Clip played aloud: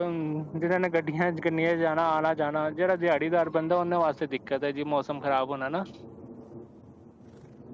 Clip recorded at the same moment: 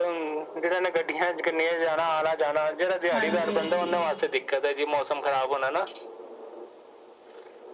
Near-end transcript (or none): ਹਾਂਜੀ-ਹਾਂਜੀ।